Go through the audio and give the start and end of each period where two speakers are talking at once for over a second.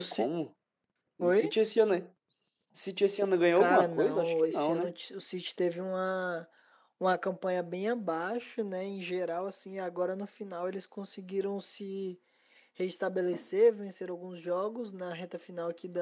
3.6-4.9

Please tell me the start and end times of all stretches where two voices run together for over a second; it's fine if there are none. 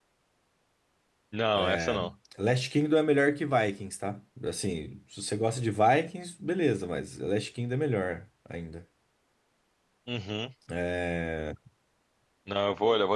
none

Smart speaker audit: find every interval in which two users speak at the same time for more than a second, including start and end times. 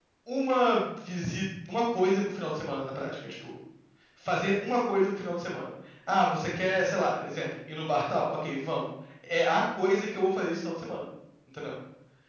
none

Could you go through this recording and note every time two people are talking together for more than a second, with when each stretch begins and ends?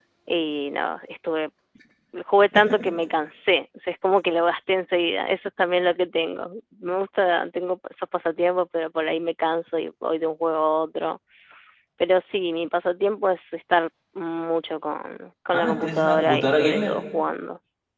15.5-16.9

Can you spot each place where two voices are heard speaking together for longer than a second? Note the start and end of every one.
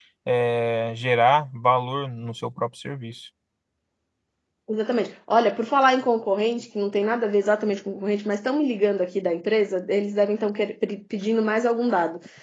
none

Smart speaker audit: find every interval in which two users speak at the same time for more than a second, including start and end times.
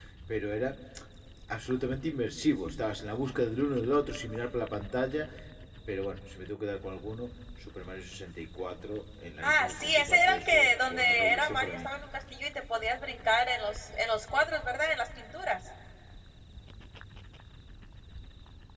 9.4-11.9

